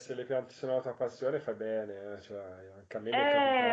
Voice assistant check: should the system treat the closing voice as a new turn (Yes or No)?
Yes